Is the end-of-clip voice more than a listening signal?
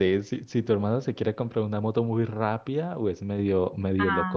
No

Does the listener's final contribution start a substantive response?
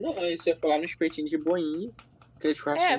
Yes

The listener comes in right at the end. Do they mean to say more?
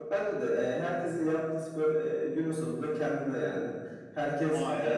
No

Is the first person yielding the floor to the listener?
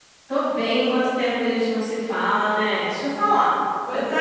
No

